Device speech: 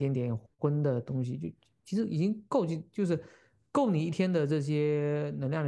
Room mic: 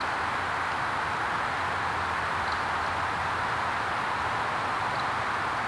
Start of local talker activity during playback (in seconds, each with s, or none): none